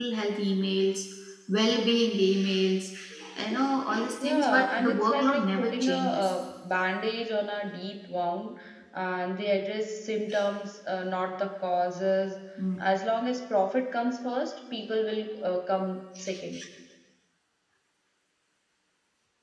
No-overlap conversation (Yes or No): No